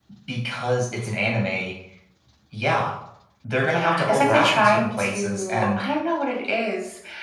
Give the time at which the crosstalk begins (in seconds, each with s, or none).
3.6 s